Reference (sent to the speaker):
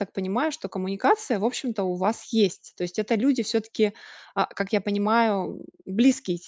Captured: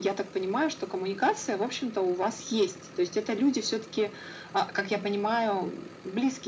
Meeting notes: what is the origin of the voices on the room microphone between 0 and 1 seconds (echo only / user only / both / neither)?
echo only